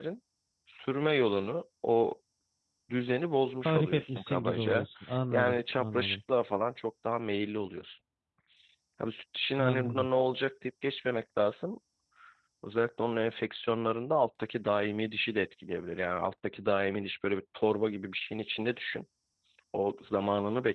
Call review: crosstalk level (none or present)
present